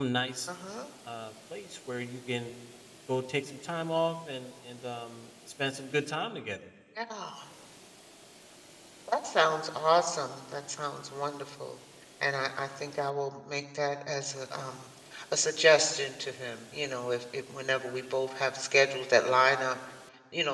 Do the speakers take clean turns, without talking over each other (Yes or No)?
Yes